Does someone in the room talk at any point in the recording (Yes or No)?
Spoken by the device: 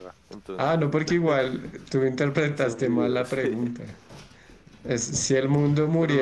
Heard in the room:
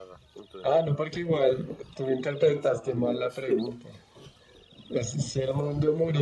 No